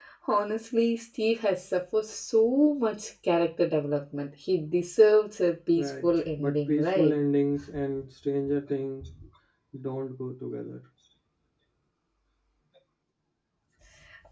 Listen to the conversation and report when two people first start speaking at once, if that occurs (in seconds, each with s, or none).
5.8 s